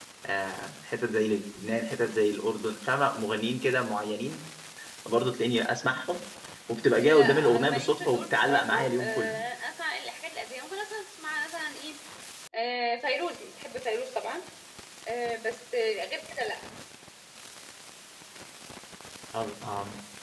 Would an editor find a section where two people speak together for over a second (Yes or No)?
Yes